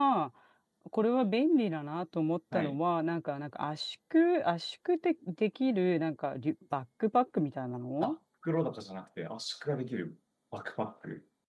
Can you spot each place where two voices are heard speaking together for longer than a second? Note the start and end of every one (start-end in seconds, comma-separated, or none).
none